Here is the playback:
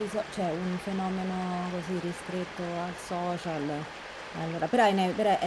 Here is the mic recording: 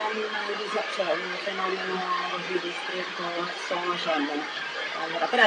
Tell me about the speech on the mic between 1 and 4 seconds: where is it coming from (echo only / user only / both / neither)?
echo only